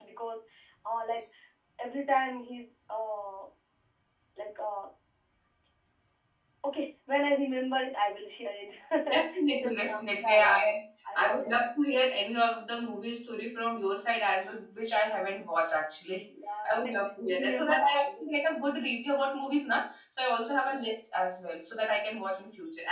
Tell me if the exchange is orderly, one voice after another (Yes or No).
No